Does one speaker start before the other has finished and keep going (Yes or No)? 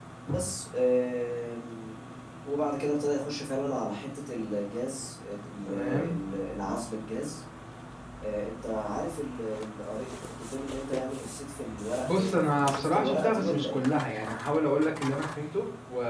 Yes